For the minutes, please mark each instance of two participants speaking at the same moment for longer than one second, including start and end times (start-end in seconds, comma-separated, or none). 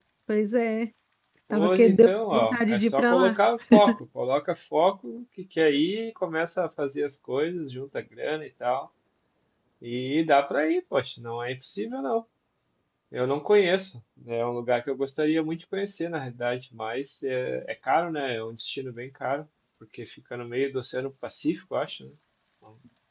1.5-3.4